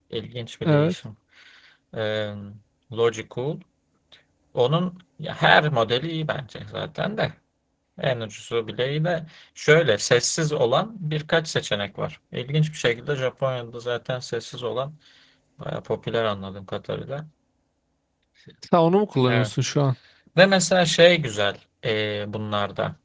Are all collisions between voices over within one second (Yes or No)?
Yes